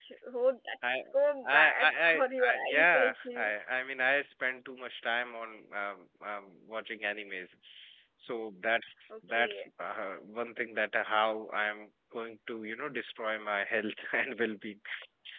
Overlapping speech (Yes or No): Yes